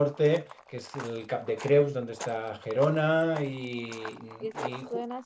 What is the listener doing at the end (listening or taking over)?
taking over